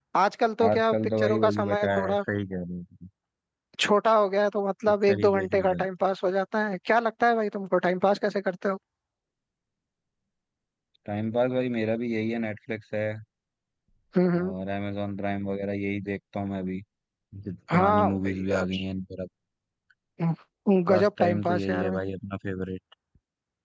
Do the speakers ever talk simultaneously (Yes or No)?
Yes